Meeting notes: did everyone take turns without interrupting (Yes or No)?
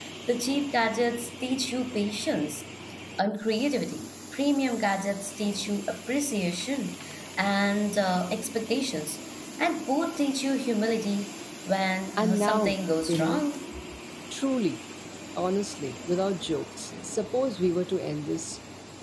No